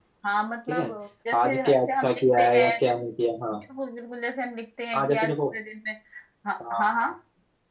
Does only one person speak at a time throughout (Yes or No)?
No